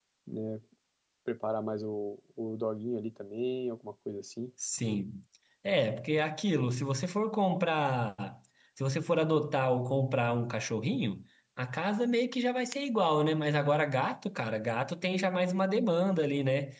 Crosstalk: none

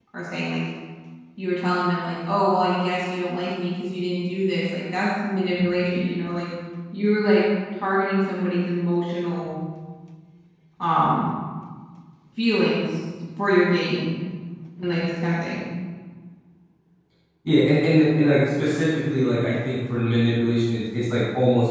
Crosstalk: none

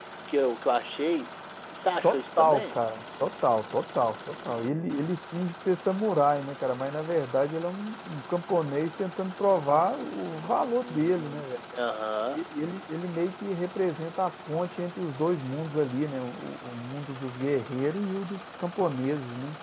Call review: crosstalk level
present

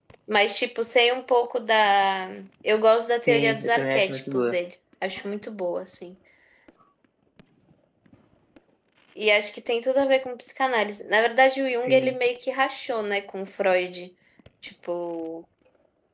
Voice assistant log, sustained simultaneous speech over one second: present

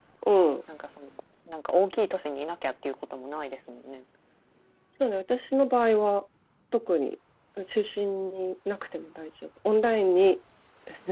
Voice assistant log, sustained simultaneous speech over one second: none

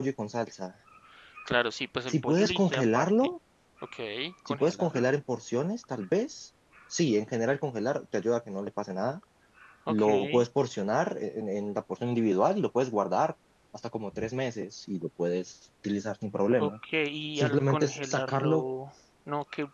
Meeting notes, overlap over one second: present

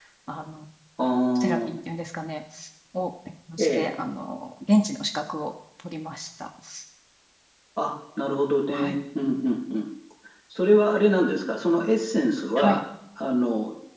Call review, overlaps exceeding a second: none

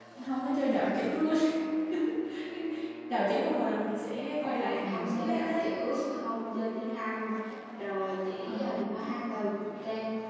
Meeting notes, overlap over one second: present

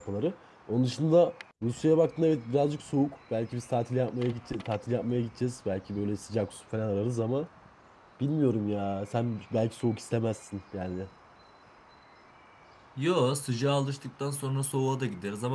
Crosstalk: none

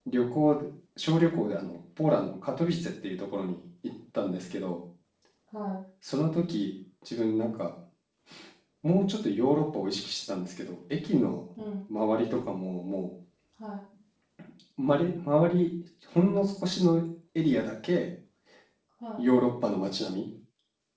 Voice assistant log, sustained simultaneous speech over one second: none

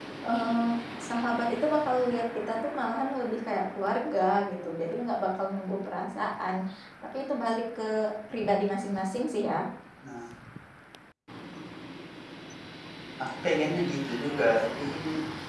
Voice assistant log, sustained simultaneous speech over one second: none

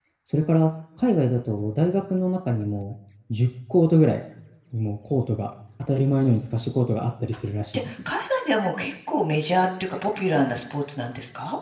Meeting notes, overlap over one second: none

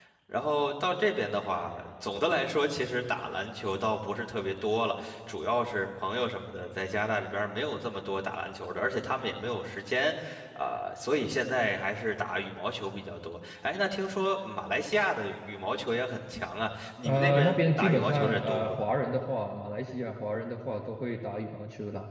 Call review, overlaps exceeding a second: present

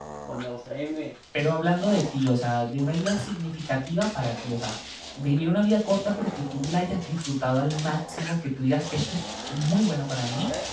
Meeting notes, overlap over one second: none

